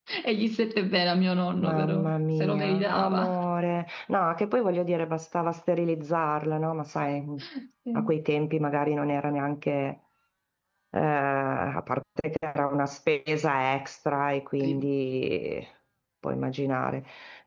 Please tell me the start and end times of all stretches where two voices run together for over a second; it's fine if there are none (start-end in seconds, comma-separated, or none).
1.6-3.4